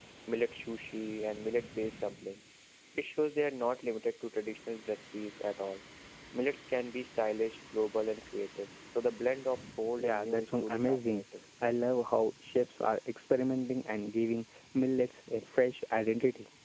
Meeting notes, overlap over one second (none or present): present